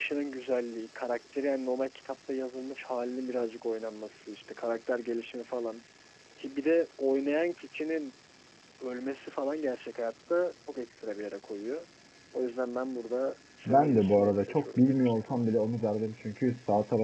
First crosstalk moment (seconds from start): 13.7 s

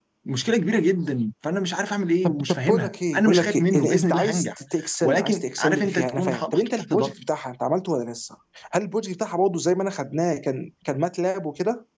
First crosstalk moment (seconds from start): 2.2 s

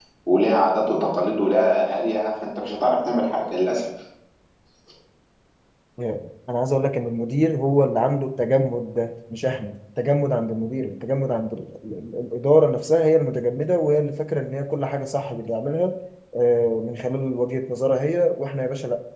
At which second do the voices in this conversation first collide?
none

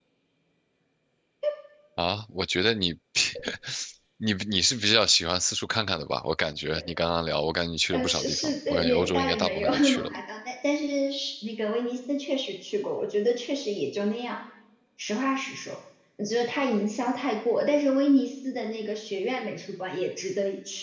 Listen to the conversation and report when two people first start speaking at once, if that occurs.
7.9 s

